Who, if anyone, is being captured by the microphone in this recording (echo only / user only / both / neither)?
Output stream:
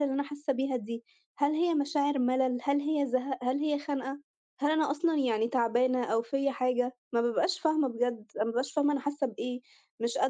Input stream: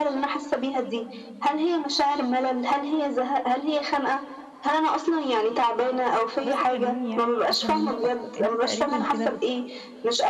both